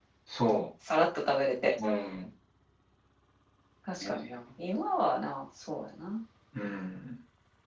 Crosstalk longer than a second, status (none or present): none